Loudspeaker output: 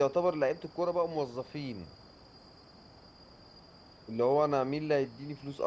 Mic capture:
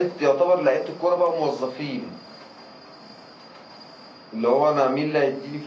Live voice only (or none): none